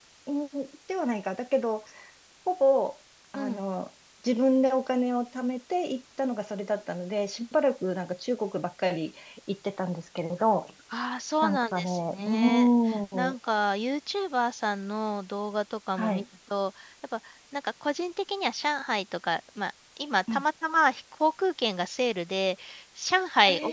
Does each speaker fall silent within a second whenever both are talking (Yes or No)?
No